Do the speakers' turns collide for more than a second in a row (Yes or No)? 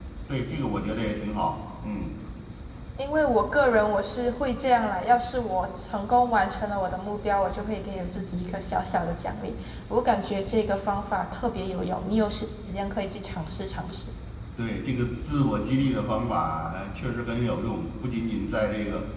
No